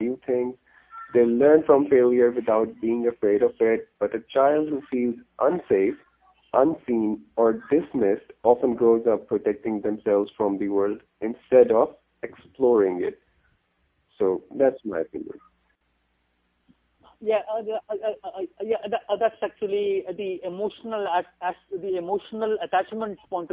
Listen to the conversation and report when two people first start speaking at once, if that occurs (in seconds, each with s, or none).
none